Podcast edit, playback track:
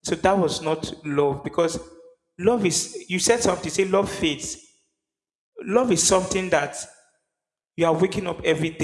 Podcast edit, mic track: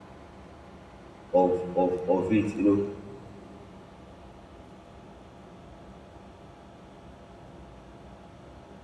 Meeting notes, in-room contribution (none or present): present